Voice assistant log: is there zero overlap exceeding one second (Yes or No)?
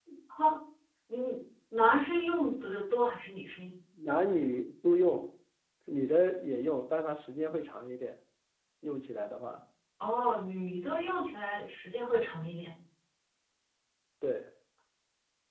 Yes